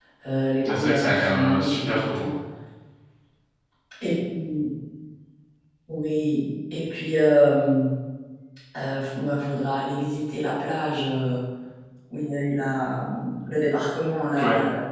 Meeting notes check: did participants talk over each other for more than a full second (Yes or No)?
Yes